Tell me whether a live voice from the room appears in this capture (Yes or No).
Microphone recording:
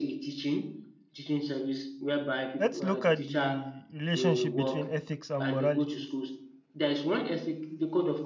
Yes